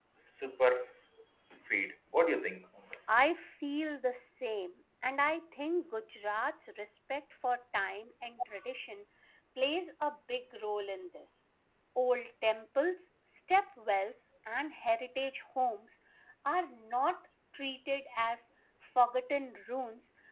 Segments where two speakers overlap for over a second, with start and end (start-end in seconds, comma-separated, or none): none